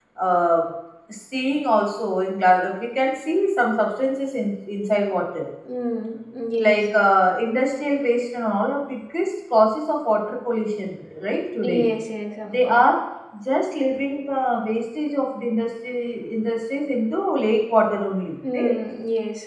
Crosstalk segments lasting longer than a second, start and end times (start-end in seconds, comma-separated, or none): none